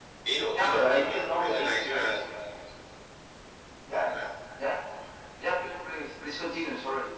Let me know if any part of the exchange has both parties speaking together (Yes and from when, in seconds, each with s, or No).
Yes, from 0.5 s